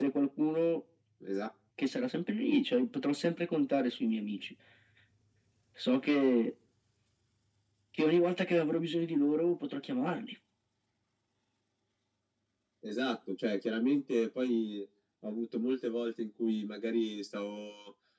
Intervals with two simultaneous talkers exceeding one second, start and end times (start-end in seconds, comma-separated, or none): none